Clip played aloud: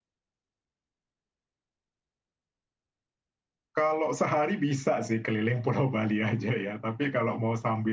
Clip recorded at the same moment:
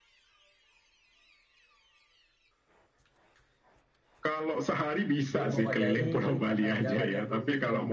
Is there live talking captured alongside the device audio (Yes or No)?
Yes